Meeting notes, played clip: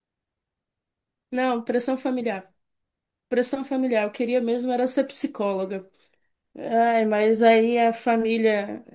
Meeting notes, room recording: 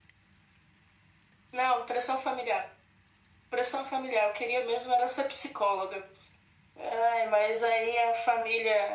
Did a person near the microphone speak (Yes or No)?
No